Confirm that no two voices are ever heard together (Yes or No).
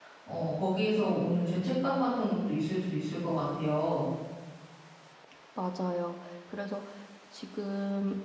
Yes